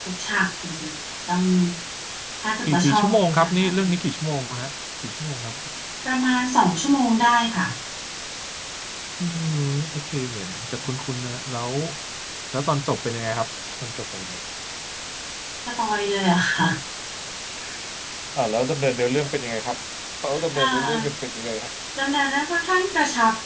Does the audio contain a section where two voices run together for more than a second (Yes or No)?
Yes